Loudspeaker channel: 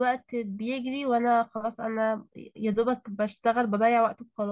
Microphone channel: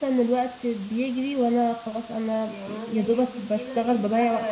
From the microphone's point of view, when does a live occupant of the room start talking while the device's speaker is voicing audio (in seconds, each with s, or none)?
2.5 s